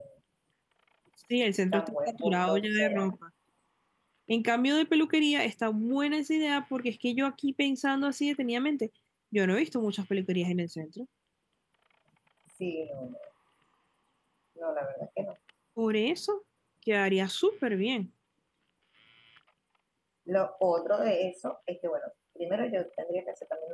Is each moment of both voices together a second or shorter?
No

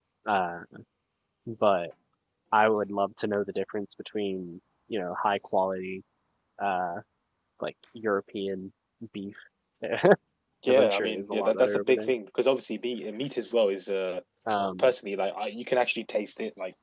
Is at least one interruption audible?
Yes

